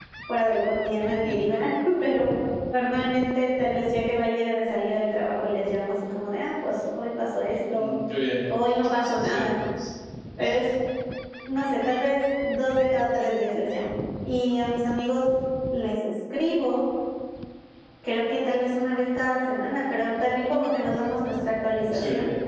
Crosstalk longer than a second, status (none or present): none